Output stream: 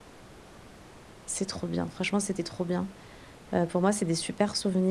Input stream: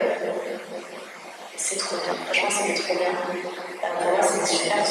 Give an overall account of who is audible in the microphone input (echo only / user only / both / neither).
echo only